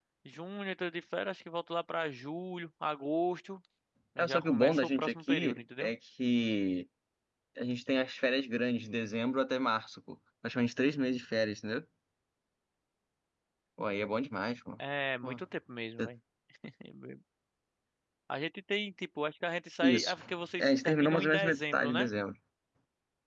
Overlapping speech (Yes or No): Yes